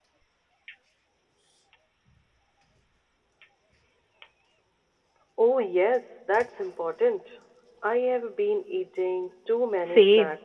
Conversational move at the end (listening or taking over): taking over